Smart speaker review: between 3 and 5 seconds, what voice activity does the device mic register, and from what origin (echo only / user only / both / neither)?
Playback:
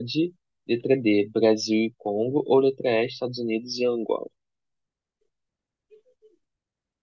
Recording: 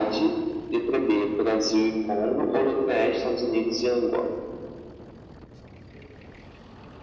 echo only